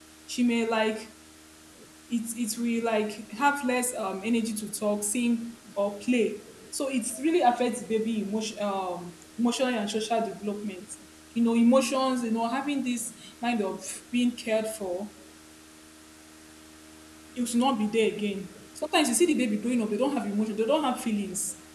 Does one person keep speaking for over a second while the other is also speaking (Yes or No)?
No